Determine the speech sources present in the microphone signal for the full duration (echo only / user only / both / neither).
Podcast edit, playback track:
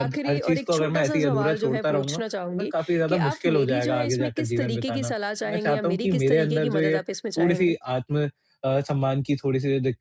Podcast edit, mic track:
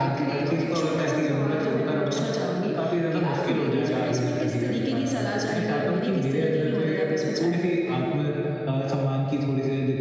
echo only